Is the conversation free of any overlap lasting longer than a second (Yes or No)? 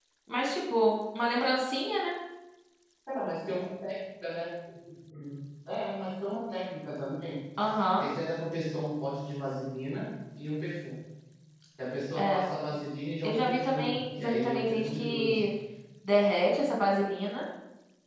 No